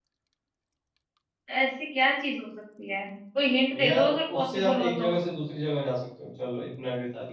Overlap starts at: 3.7 s

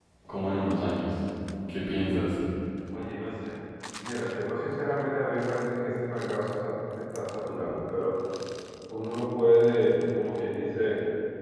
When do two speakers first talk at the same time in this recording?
none

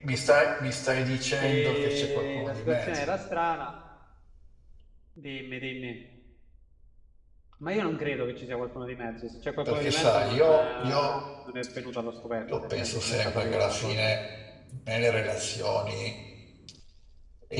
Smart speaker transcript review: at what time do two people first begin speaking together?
1.4 s

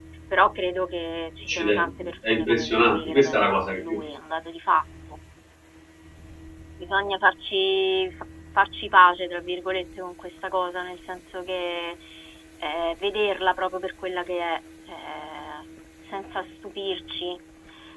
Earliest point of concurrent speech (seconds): 1.5 s

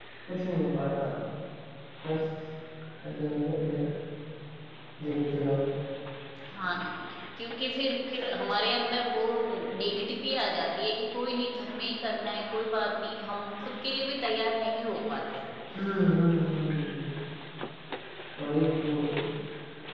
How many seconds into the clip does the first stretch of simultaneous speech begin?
none

